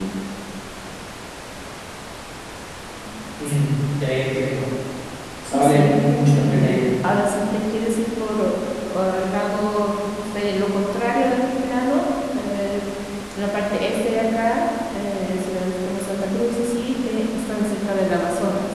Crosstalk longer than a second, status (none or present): present